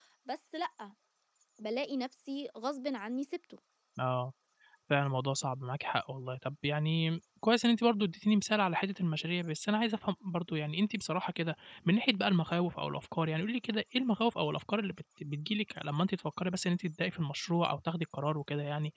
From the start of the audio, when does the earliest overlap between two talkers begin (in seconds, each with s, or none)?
none